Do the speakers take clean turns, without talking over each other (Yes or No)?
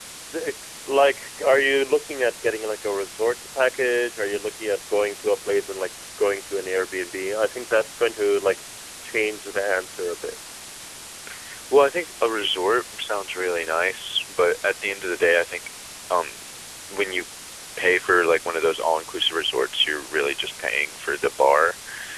Yes